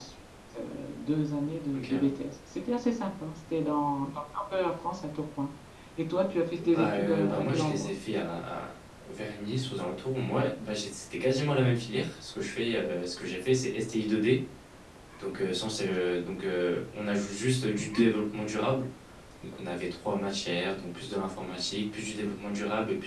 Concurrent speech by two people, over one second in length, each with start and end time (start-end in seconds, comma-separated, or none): 6.6-7.9